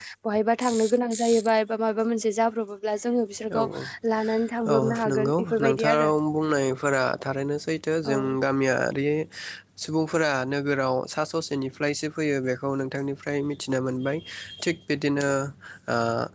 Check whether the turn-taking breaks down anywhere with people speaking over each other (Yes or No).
Yes